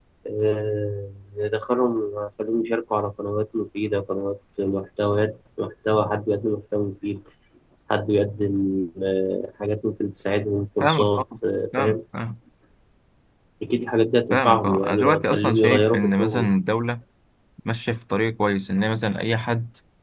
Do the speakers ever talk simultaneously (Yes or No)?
Yes